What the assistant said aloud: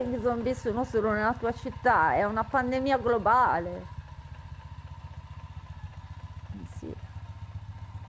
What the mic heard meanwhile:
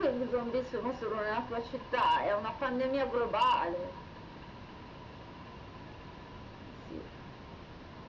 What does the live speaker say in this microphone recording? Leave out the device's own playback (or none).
none